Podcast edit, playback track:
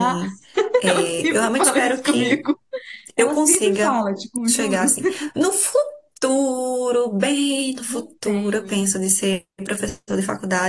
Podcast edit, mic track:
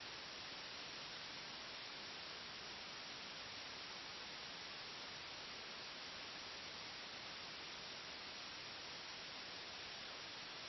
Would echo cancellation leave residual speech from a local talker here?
No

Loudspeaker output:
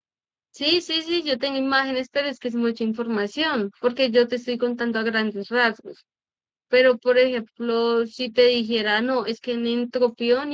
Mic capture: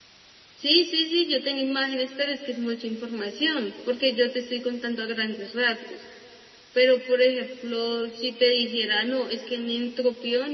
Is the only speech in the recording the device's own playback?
Yes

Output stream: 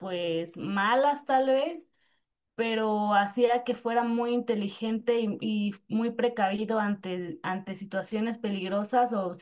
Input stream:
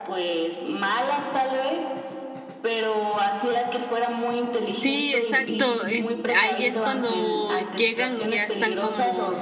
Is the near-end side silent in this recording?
No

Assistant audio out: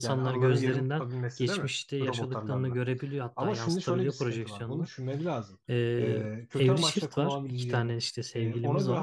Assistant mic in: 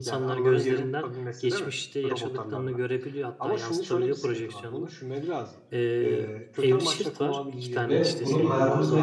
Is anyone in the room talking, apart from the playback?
Yes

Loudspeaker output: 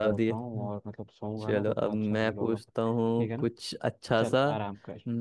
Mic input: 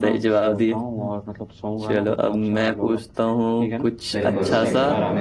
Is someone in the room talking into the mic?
Yes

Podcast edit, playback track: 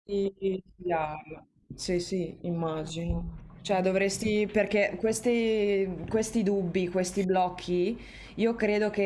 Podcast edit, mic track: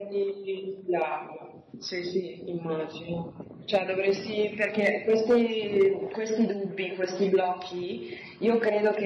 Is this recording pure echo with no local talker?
Yes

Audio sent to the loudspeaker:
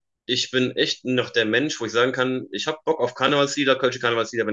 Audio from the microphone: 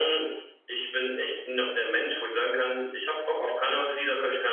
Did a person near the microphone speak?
No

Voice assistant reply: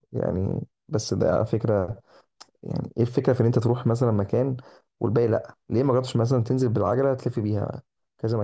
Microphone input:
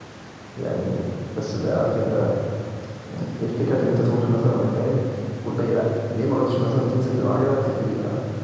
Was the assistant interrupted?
No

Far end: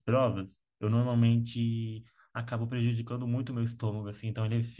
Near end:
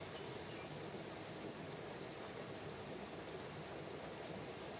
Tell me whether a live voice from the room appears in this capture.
No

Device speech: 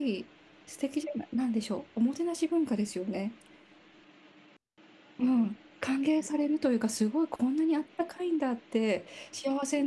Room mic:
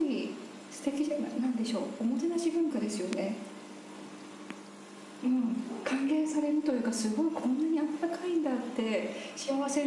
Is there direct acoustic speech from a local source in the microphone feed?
No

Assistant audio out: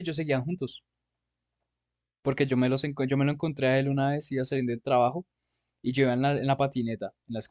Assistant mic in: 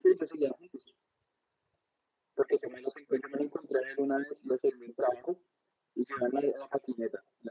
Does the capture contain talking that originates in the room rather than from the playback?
No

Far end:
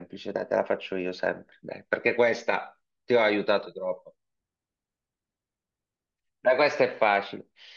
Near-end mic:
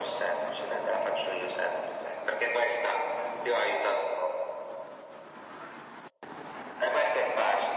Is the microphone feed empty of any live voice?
Yes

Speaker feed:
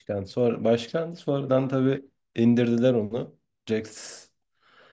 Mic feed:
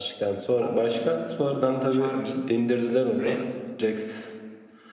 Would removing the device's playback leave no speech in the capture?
No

